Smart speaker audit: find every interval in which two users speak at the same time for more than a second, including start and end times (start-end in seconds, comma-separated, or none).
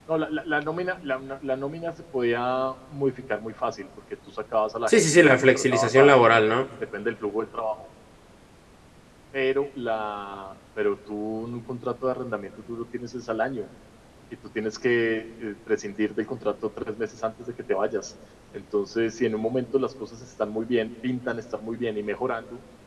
4.9-6.3